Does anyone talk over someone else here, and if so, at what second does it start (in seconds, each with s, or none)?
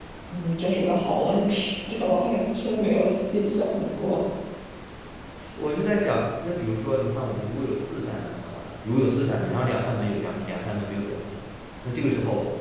none